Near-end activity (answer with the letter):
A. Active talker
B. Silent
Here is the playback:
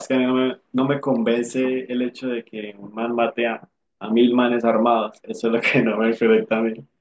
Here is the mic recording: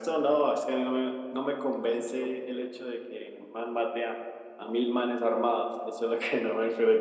B